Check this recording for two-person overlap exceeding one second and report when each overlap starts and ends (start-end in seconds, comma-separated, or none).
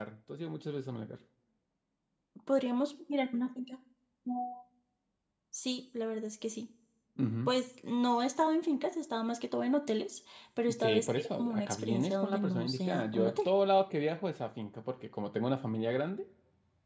10.8-13.5